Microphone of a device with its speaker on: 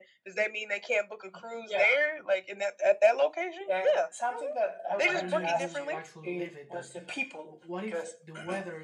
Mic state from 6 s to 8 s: both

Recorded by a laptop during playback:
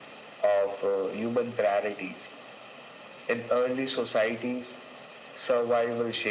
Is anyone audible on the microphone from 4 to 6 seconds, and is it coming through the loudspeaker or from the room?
echo only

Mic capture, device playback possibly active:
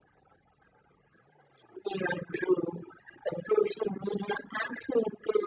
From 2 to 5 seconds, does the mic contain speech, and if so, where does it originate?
echo only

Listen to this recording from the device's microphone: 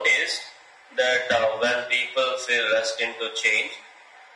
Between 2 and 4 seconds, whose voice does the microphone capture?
echo only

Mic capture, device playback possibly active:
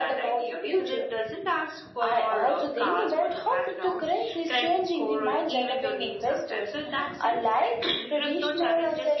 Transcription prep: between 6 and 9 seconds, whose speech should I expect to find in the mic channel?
echo only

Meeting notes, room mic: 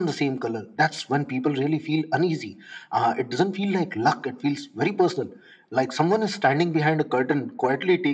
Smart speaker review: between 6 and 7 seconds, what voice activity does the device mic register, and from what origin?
echo only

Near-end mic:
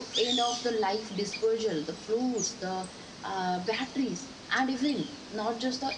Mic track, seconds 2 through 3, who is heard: echo only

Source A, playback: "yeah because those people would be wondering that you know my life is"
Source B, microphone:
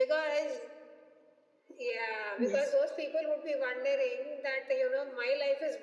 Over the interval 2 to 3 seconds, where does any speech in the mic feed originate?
both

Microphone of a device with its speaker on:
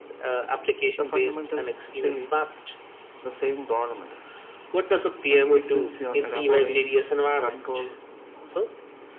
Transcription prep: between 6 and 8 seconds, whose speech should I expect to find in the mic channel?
both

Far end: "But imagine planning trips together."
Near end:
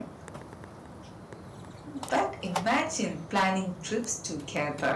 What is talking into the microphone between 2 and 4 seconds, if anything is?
echo only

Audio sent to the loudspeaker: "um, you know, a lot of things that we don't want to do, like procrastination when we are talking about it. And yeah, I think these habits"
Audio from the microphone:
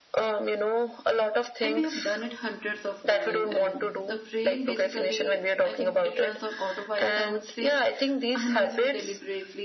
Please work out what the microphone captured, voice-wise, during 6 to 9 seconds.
both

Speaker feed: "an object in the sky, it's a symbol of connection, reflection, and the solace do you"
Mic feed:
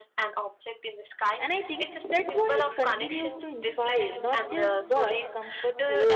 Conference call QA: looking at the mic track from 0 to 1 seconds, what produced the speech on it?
echo only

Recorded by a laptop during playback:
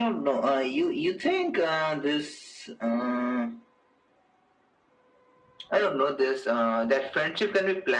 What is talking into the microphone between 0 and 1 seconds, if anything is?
echo only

